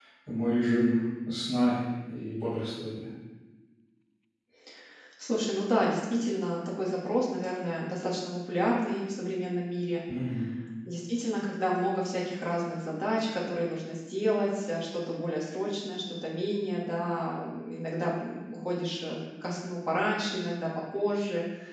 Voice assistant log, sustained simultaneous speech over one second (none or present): none